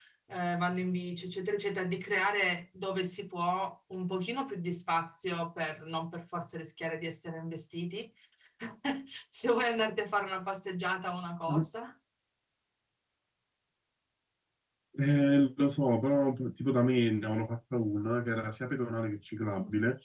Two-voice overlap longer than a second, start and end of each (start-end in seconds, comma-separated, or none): none